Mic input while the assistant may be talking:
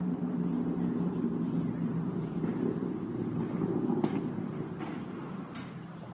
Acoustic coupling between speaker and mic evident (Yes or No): No